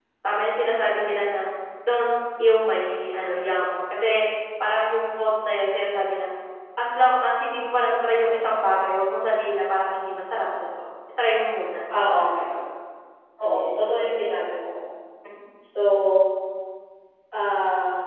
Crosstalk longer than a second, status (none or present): none